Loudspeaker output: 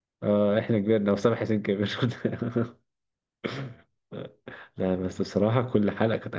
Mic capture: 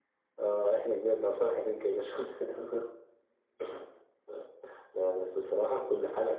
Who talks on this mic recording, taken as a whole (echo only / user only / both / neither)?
echo only